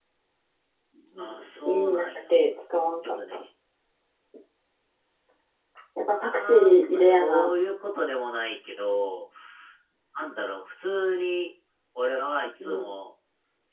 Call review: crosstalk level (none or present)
present